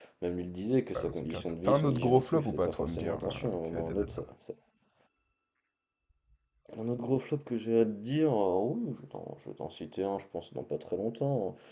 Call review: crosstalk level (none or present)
present